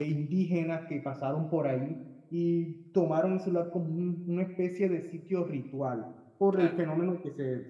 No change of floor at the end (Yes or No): Yes